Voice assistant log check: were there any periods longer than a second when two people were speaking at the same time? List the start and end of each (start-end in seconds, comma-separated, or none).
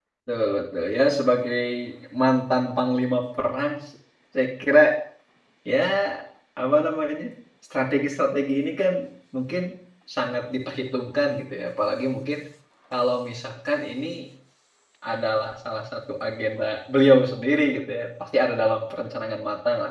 none